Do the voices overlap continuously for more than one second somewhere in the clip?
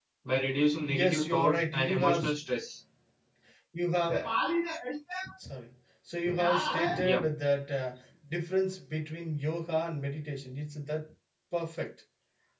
Yes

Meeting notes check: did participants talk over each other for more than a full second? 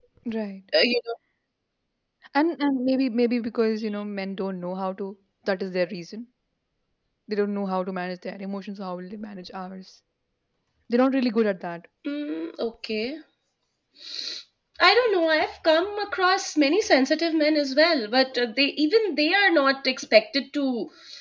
No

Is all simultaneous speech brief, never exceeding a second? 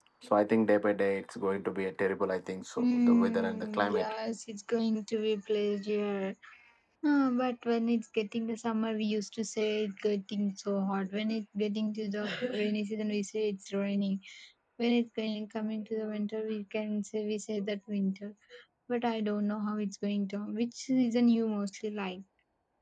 No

